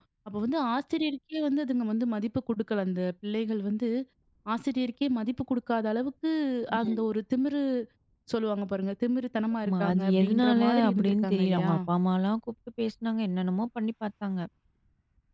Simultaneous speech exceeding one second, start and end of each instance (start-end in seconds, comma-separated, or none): 9.7-11.7